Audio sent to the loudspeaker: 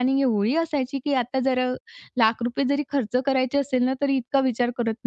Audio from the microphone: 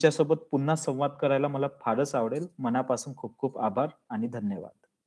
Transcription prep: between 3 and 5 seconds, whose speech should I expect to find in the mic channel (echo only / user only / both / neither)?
user only